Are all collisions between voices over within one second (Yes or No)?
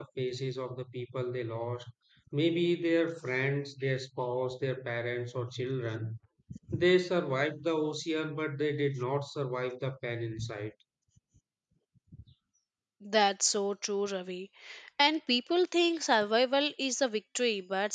Yes